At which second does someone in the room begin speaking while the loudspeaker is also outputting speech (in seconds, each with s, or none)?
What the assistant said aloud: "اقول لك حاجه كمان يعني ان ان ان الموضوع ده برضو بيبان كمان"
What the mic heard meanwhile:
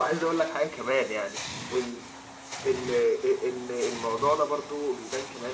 none